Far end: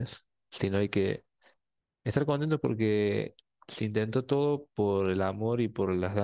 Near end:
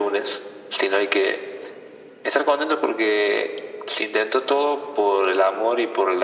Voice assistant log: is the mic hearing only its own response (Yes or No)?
Yes